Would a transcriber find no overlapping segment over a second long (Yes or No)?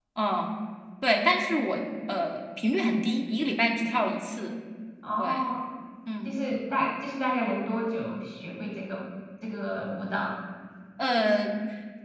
Yes